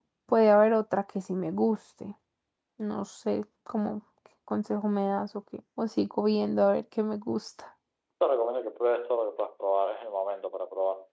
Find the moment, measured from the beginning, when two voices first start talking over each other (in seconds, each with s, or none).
none